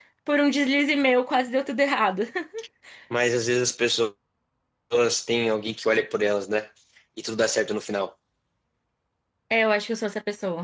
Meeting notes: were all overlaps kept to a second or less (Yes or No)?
Yes